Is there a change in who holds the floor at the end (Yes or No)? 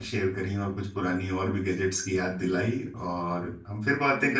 Yes